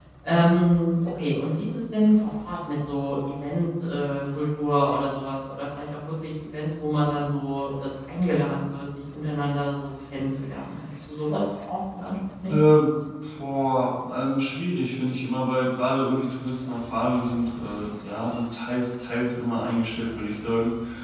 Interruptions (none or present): none